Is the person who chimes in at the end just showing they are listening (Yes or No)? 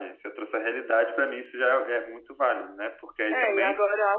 No